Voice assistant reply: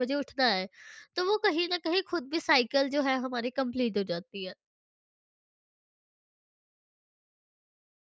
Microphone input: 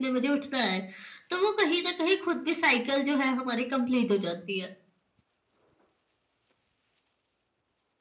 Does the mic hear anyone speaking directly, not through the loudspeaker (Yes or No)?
No